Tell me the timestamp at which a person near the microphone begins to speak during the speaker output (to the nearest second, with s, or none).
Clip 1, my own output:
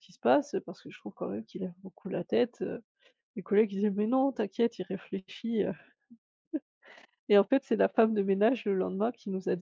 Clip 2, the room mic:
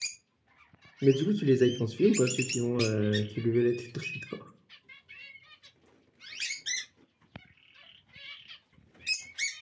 1 s